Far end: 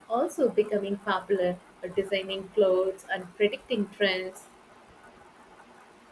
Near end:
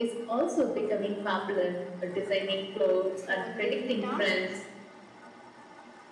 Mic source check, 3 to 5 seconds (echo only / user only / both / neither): both